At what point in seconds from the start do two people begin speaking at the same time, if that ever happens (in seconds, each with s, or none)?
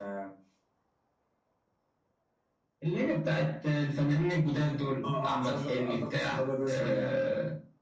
5.0 s